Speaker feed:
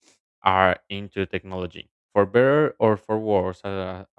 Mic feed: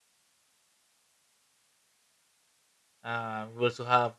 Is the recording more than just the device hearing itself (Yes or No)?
Yes